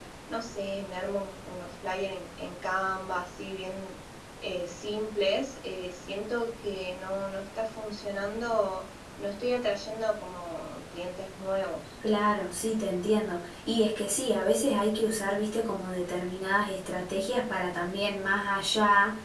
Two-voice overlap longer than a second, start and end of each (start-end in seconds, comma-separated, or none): none